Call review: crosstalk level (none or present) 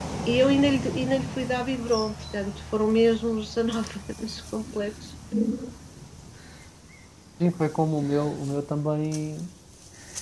none